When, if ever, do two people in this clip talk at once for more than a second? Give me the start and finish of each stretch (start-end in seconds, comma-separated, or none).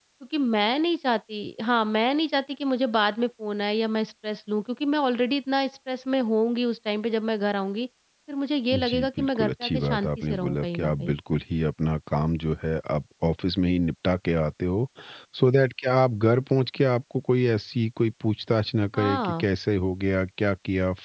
8.7-11.2